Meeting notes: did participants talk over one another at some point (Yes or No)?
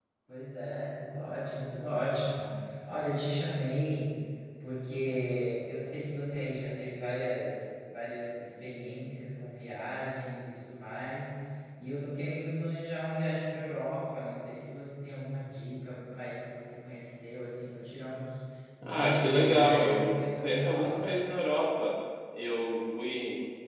Yes